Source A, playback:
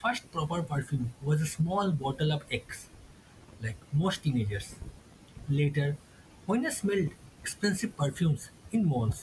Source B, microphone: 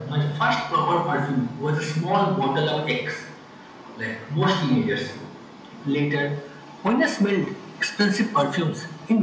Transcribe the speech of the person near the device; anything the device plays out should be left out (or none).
none